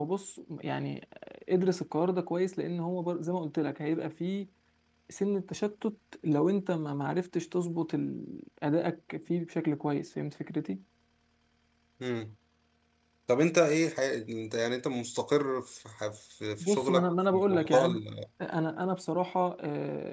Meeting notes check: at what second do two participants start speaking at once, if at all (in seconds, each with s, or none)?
16.6 s